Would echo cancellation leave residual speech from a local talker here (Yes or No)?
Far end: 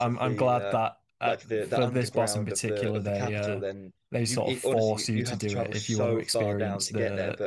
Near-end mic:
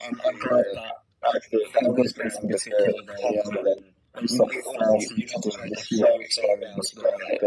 No